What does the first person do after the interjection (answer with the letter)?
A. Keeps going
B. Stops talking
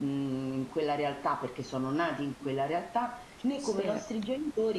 A